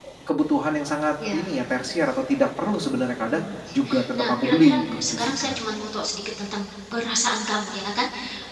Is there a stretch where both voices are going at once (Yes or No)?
Yes